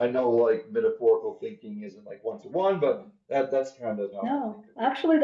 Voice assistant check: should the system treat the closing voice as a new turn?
Yes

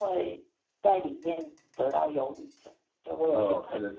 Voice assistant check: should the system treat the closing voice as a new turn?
Yes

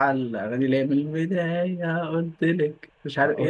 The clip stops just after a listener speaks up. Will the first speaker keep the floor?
No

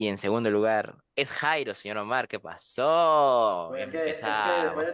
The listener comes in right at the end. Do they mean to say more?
Yes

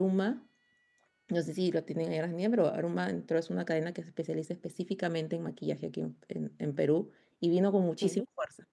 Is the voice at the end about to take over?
No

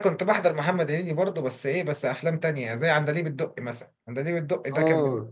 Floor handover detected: No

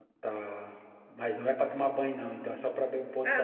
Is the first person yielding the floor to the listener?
Yes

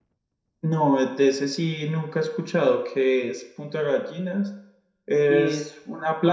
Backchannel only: Yes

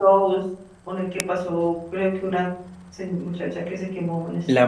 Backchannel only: No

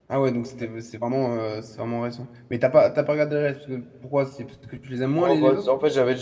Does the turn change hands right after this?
Yes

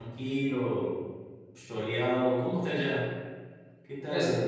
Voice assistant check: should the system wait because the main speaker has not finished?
No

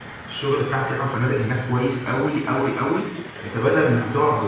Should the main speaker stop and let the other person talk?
No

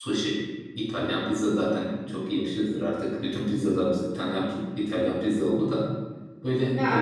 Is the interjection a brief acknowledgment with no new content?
Yes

